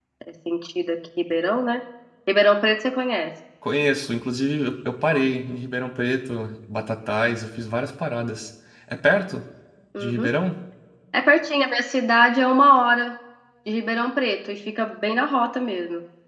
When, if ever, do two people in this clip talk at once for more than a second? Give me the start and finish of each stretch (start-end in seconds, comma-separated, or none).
none